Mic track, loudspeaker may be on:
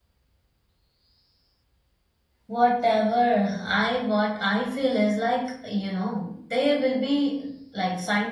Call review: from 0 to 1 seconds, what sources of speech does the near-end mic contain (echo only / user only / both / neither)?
neither